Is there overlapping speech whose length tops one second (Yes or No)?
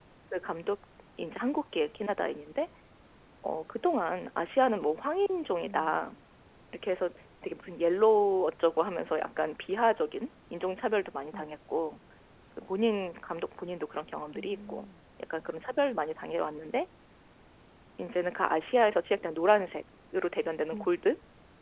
No